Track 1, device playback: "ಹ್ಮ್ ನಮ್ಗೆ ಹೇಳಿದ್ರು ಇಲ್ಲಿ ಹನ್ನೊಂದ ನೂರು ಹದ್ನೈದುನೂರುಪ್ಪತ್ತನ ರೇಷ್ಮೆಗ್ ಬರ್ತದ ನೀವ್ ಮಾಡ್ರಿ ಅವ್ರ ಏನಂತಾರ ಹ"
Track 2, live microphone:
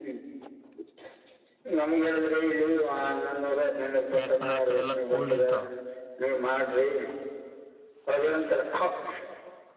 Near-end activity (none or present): present